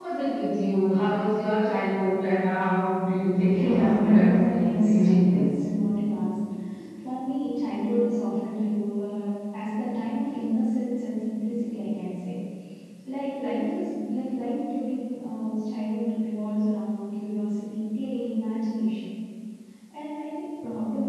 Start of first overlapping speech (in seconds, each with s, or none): 3.4 s